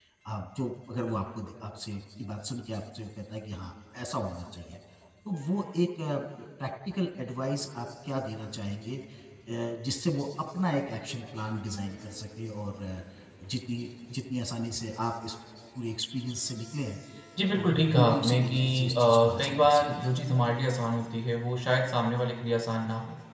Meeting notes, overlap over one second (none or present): present